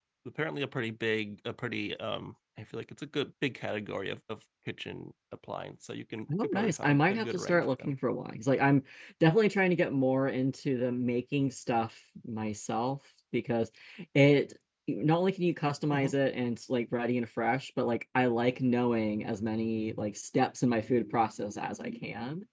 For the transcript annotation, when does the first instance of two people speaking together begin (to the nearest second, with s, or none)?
6 s